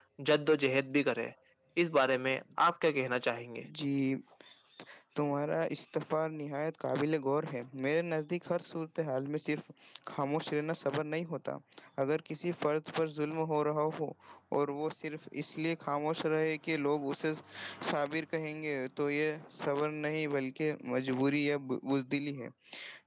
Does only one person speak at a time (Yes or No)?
Yes